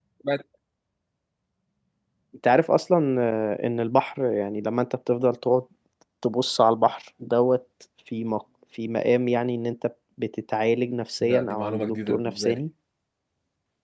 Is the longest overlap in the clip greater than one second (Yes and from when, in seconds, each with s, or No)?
Yes, from 11.2 s